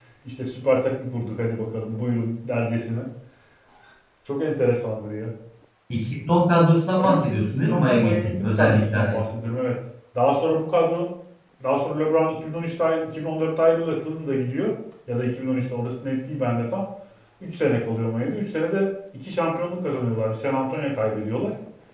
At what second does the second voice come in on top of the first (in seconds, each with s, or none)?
7.0 s